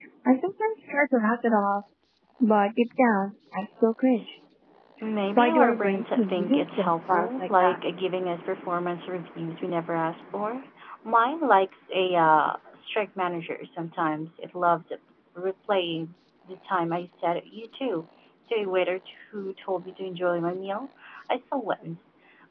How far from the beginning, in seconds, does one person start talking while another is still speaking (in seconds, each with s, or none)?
5.4 s